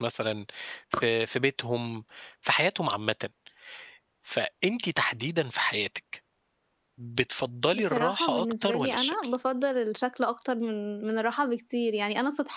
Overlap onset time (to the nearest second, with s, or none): 8 s